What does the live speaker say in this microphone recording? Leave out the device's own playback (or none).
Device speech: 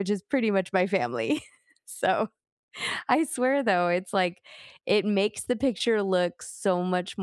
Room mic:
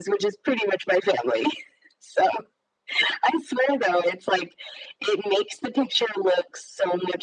none